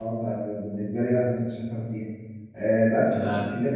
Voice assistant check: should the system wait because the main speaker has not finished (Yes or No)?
Yes